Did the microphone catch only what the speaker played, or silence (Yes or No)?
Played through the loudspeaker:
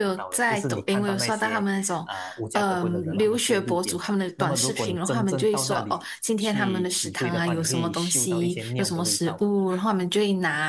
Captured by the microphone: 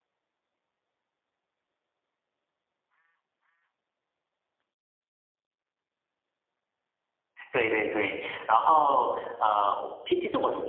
No